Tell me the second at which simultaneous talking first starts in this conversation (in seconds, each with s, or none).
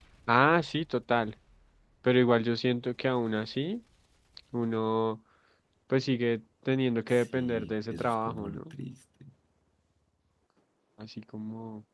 7.1 s